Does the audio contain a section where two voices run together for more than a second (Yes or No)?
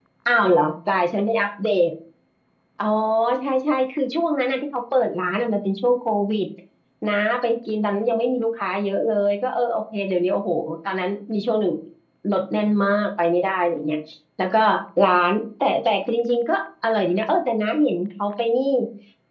No